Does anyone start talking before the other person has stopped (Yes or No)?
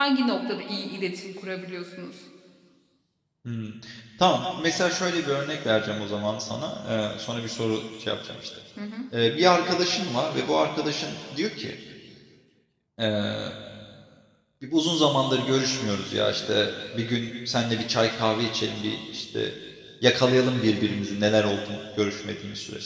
No